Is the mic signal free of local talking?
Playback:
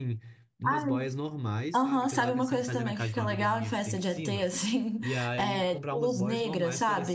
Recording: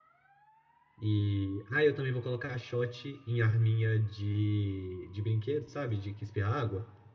No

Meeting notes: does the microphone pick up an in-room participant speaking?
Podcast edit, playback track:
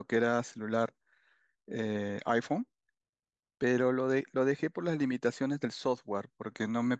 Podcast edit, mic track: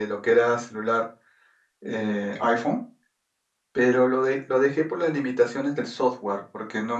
No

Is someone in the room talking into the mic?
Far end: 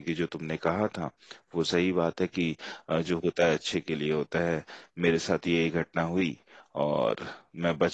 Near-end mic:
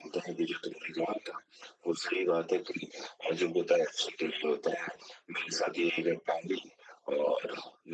No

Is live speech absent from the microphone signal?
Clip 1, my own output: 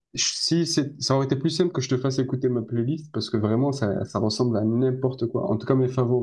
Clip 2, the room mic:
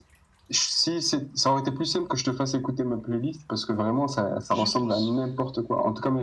No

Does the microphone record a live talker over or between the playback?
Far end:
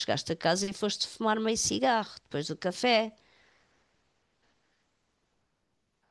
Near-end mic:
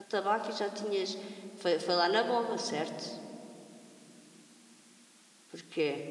Yes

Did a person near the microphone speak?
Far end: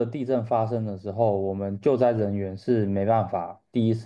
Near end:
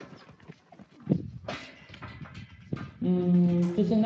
Yes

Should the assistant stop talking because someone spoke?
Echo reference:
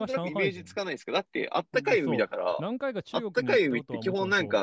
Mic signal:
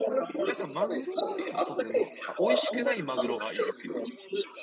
Yes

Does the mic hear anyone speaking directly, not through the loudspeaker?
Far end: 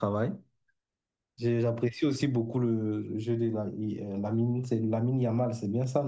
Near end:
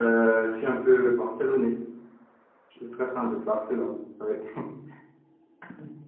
Yes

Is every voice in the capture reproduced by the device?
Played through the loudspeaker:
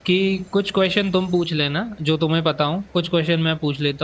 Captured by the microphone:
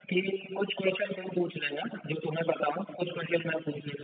Yes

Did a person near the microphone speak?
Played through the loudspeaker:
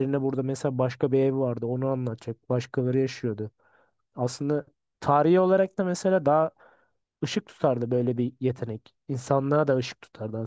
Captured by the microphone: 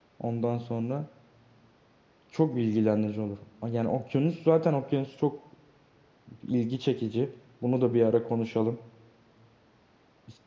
Yes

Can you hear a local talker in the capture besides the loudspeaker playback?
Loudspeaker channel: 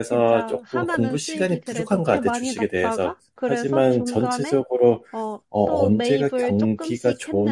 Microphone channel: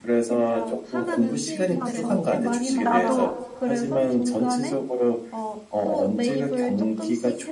Yes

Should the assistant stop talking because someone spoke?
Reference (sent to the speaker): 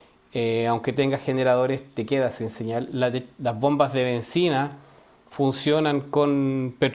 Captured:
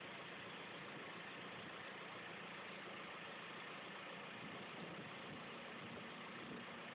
No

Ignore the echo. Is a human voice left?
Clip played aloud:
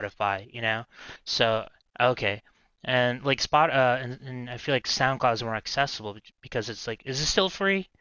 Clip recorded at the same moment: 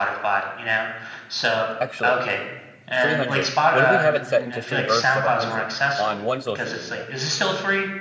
Yes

